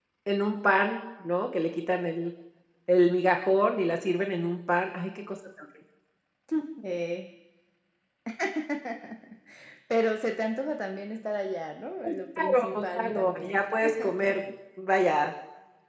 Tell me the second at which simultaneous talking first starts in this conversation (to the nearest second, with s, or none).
12 s